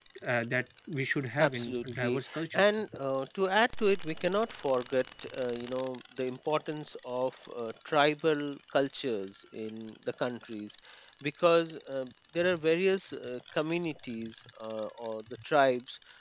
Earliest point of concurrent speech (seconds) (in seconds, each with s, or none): 1.4 s